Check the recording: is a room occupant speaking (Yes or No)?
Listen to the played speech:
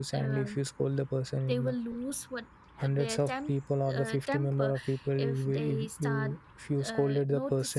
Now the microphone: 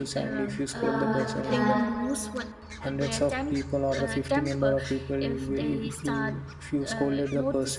Yes